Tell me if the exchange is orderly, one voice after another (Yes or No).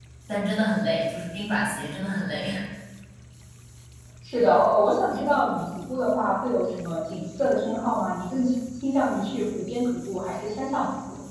Yes